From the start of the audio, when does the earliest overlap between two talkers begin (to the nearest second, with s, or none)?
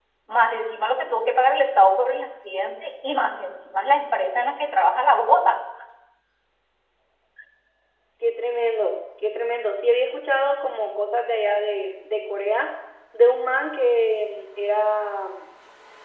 none